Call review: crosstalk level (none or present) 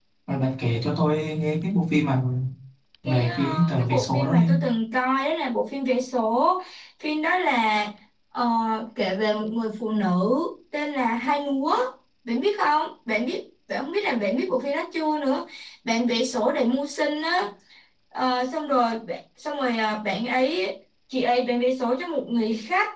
present